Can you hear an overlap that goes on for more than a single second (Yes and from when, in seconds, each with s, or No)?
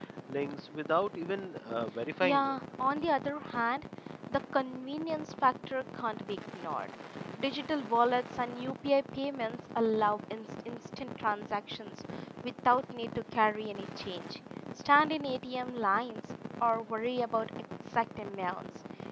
No